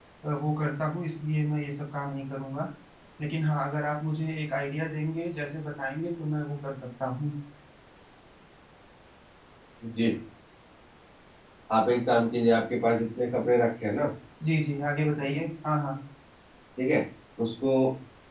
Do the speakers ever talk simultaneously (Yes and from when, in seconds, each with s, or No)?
No